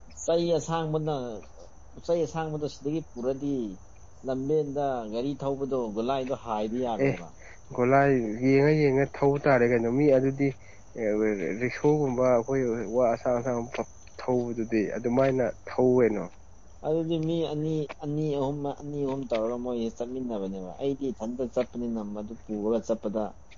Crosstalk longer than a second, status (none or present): none